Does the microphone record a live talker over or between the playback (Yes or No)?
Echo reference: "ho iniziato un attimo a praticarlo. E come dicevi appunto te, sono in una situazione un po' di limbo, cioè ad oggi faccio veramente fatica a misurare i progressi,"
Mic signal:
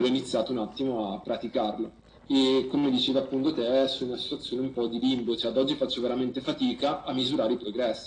No